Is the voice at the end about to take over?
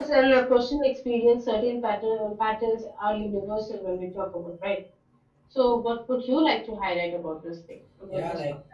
Yes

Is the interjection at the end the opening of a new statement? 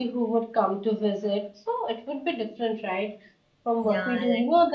No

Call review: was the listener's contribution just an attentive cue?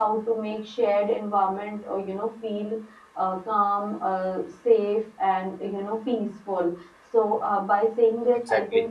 Yes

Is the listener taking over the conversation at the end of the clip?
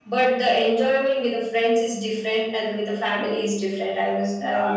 Yes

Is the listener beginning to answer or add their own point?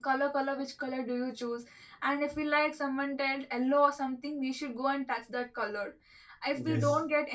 No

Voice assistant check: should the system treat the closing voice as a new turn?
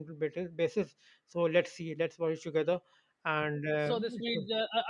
Yes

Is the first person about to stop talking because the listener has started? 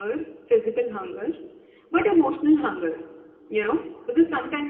No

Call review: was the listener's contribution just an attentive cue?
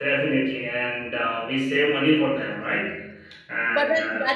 No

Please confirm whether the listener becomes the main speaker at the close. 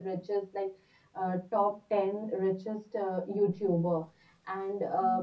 No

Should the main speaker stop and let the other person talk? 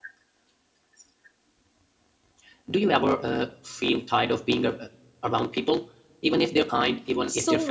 Yes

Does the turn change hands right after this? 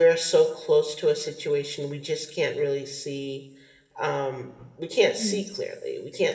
No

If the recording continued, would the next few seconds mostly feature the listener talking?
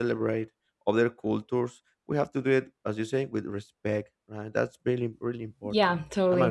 Yes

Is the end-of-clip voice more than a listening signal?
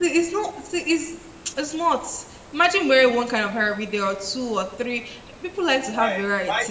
Yes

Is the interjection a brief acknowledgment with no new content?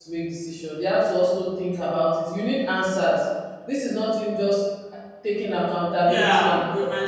No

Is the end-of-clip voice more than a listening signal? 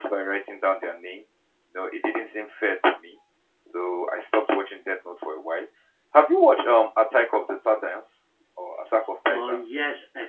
Yes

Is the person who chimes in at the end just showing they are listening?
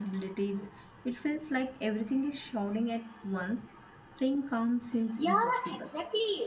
No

